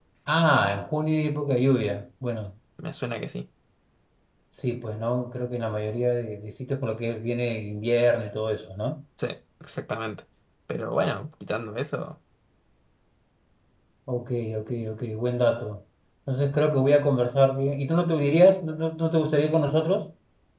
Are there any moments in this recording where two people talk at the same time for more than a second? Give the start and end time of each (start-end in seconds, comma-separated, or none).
none